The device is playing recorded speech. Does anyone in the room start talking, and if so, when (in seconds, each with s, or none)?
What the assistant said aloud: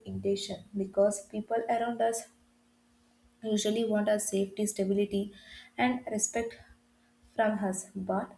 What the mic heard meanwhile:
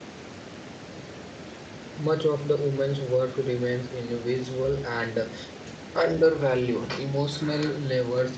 2.0 s